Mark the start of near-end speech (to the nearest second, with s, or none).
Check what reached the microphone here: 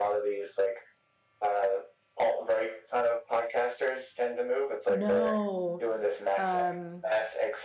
5 s